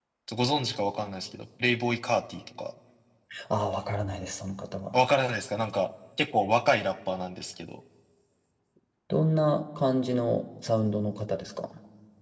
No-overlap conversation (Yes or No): Yes